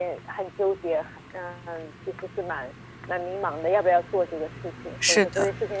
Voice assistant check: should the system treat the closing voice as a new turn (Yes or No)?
No